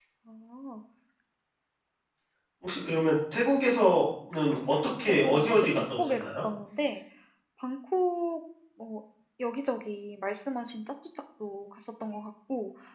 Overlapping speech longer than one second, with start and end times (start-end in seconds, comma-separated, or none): 5.0-6.3